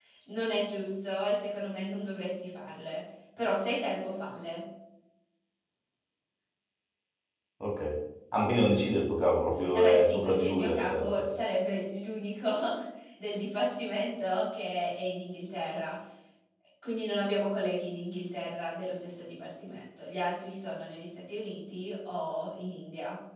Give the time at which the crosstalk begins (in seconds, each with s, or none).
9.7 s